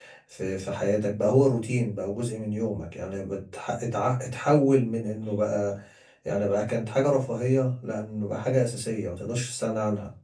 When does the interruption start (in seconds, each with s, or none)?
none